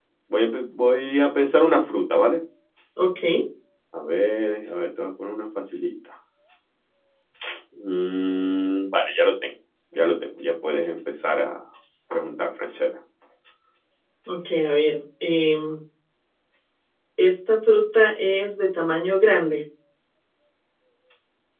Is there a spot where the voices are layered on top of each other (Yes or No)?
No